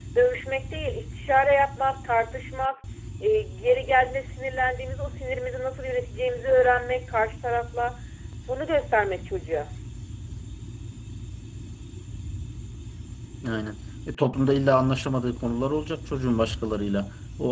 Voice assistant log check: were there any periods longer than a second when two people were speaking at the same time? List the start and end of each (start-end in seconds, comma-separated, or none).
none